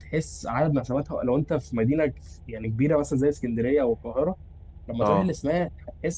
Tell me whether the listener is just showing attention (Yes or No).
Yes